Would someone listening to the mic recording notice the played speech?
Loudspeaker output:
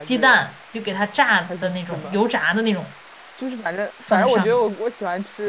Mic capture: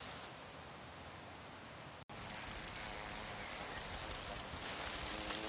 No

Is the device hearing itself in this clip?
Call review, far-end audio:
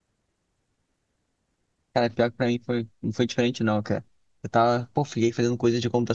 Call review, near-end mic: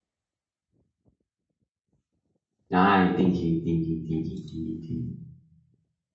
No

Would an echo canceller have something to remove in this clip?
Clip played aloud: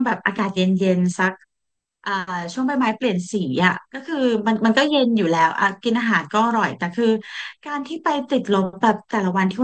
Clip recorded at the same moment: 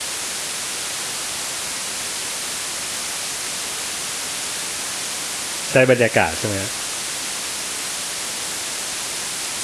No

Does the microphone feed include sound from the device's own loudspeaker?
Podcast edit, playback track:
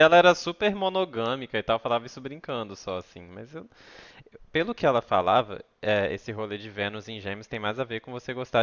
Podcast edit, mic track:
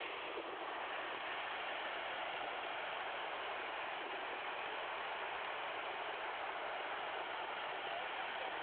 No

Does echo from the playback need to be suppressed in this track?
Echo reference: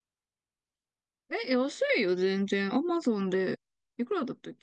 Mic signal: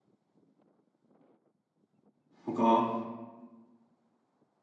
No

